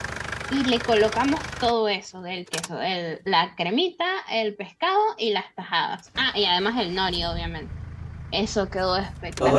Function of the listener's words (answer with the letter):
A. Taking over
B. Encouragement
A